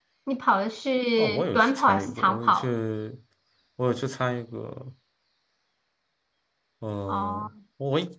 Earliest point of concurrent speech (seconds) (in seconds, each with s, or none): 1.2 s